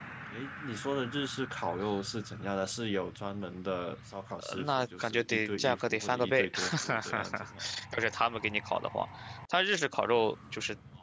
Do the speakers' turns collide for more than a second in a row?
Yes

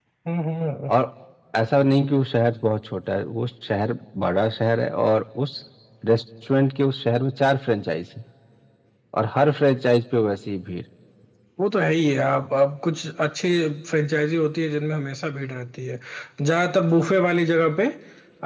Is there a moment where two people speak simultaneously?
No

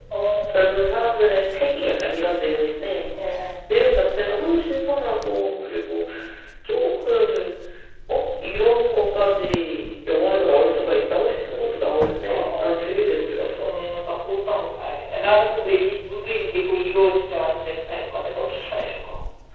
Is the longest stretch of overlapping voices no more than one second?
Yes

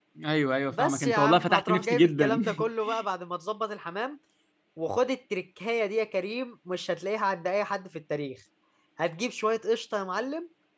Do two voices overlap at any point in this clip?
Yes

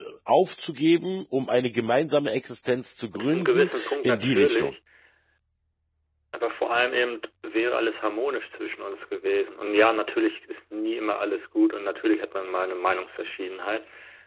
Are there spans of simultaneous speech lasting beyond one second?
Yes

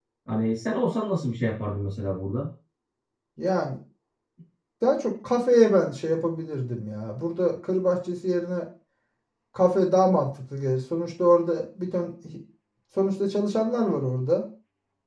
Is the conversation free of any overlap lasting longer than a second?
Yes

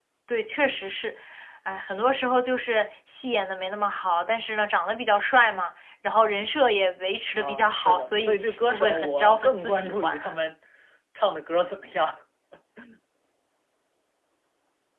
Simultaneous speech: Yes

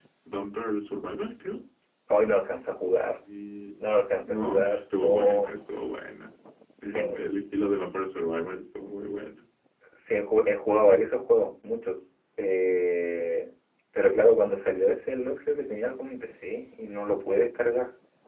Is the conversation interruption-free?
No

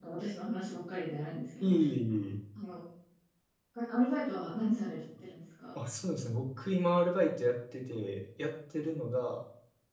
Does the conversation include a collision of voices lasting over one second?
No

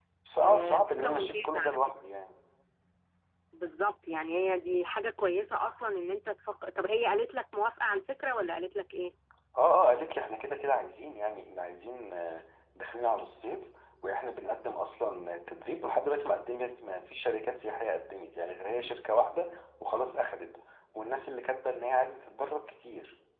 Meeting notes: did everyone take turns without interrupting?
No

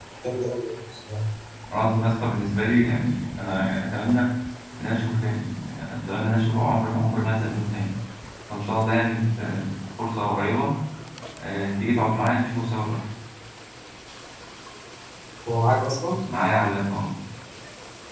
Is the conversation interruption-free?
Yes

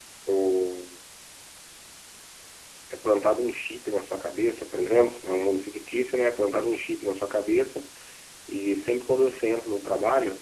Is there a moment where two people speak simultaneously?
No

